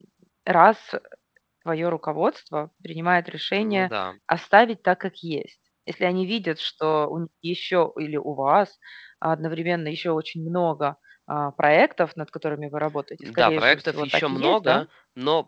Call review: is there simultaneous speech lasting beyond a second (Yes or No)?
Yes